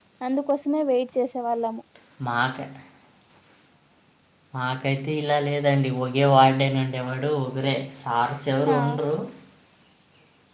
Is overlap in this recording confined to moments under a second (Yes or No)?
Yes